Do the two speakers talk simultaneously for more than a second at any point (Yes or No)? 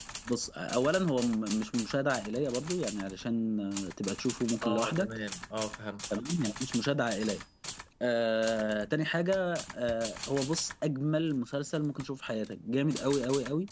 No